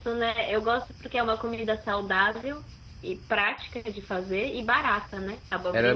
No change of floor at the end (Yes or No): No